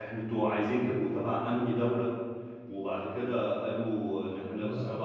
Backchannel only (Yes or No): Yes